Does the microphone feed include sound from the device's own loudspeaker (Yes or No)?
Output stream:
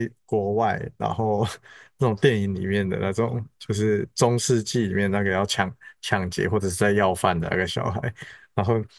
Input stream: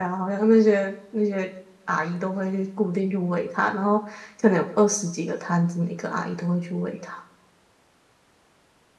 No